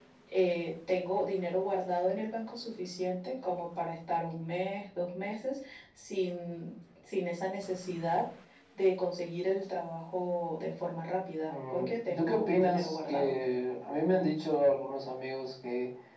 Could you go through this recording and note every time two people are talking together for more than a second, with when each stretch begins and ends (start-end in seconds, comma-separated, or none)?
11.5-13.4